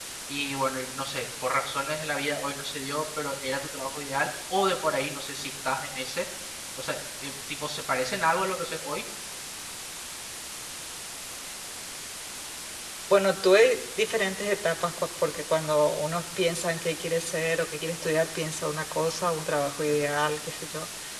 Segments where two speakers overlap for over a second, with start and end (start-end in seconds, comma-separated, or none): none